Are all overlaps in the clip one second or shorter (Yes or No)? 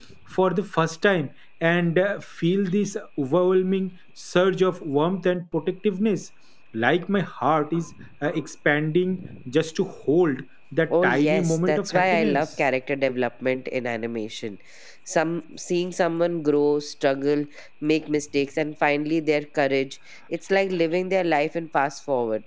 No